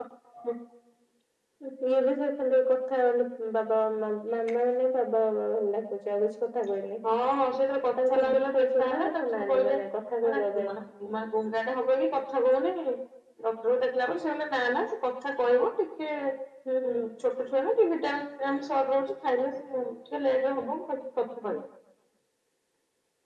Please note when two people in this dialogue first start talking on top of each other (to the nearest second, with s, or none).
8 s